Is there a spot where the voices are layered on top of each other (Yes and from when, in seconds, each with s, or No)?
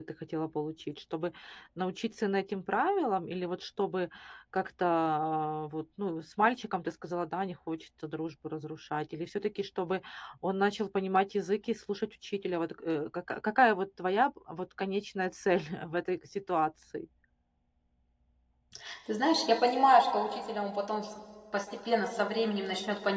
No